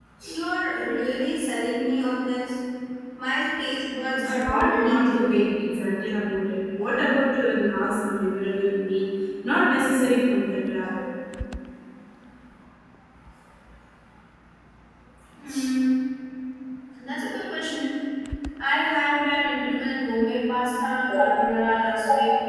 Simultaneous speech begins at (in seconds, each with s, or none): 4.2 s